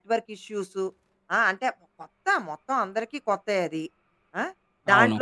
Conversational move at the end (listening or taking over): listening